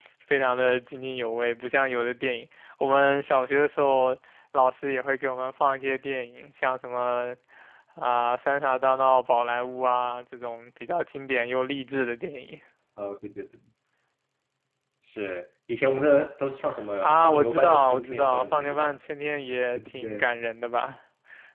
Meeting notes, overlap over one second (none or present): present